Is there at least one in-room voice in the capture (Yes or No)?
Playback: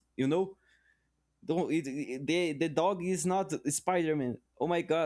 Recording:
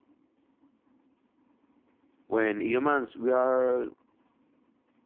Yes